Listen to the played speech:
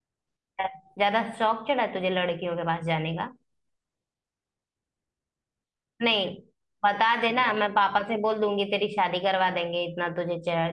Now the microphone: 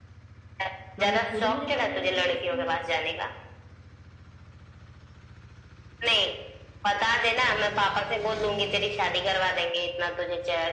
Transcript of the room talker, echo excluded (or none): मम्मी खुद मुझे पढ़ने के लिए भेजती है